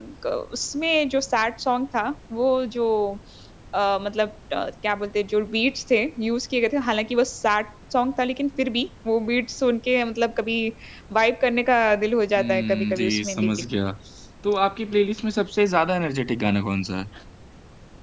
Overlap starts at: 12.4 s

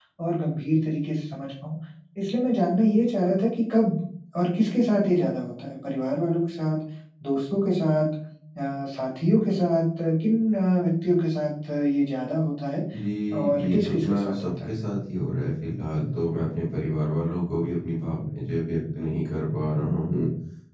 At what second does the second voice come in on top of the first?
13.4 s

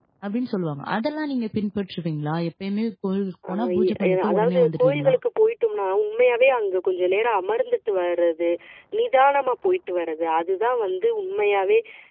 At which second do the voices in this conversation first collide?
3.4 s

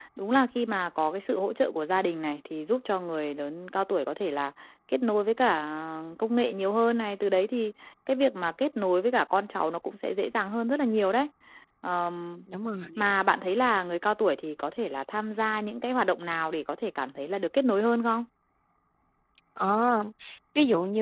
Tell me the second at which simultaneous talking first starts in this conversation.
none

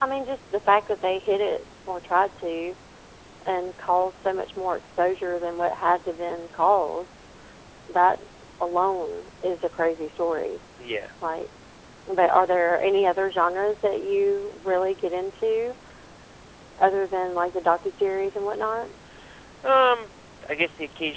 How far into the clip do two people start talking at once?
none

